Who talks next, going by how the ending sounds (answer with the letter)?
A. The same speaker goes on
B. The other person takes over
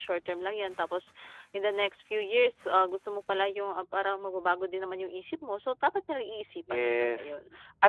B